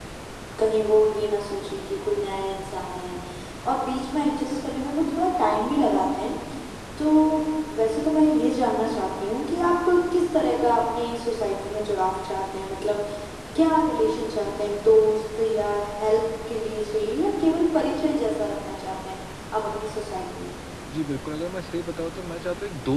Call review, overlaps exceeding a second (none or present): none